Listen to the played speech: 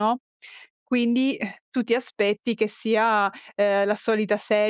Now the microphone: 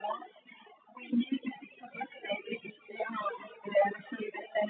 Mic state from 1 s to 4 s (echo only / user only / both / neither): echo only